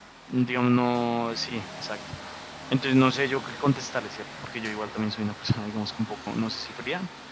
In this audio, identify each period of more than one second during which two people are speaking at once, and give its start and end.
none

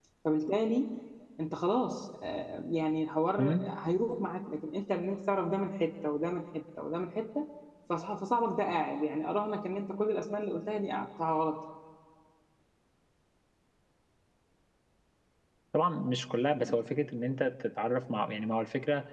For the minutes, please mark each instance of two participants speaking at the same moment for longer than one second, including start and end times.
none

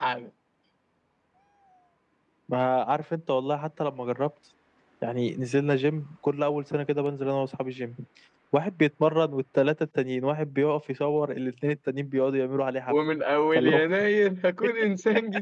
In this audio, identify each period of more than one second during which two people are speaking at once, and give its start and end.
none

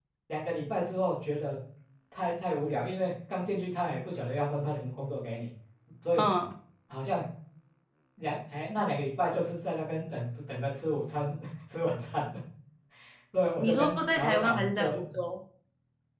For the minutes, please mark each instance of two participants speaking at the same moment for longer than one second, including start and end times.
13.6-14.9

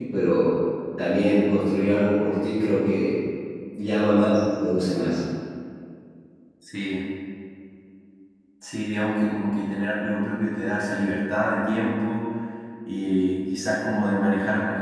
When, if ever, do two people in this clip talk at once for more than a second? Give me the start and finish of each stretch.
none

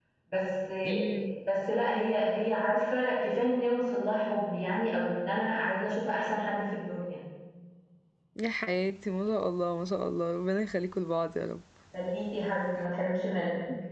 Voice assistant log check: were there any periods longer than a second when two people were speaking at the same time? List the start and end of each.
none

